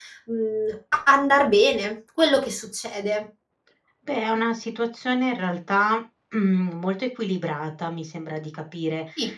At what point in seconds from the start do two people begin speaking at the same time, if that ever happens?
none

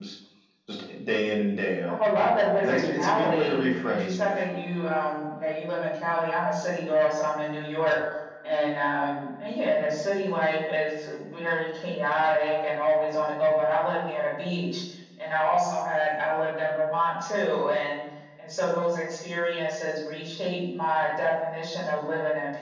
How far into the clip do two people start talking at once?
2.6 s

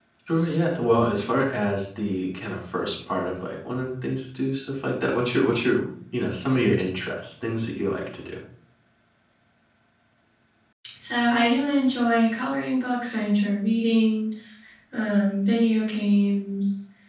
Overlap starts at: none

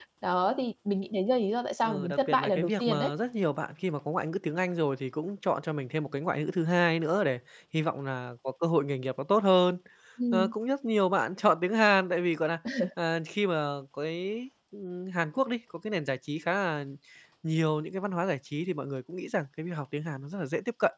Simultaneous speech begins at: 1.8 s

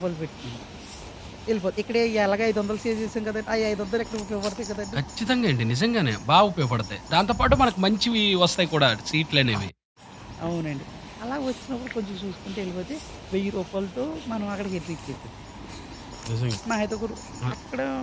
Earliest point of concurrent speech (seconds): none

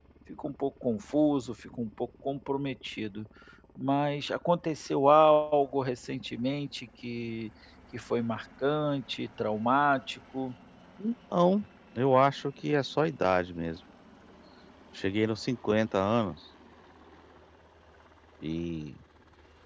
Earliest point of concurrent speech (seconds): none

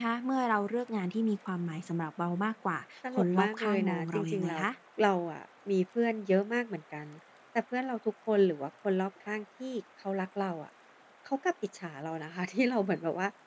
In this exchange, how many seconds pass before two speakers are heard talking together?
3.2 s

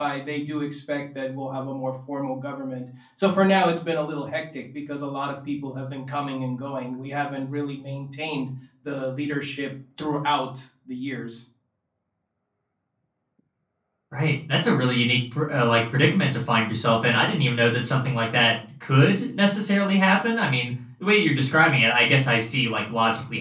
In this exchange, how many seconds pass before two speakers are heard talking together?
none

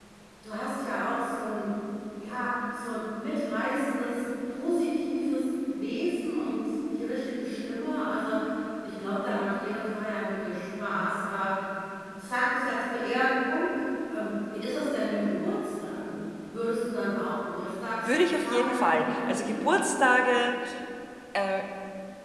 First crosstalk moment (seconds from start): 18.0 s

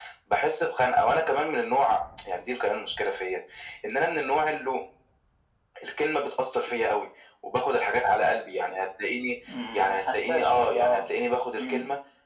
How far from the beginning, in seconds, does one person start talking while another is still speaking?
9.7 s

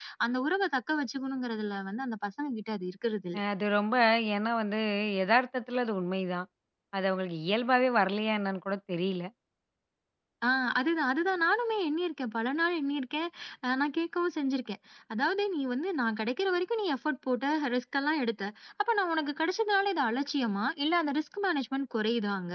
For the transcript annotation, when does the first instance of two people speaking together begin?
none

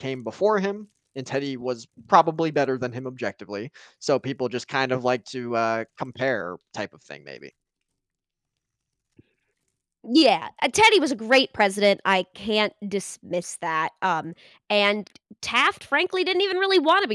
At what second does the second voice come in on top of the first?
none

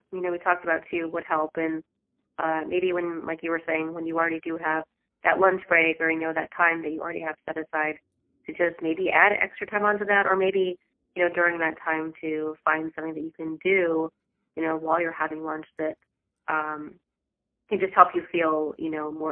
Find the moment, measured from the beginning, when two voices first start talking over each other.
none

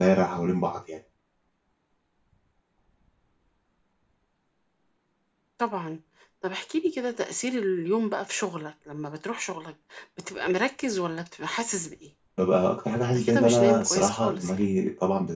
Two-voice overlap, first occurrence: 13.2 s

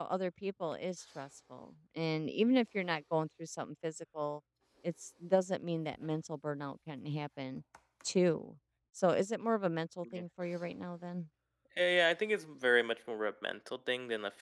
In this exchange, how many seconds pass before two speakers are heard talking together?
none

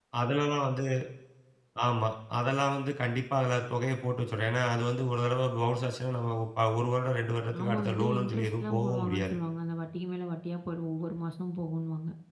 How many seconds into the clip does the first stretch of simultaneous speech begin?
7.5 s

